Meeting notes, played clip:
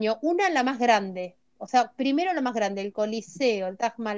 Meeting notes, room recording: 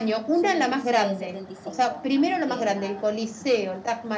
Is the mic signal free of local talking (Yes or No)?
No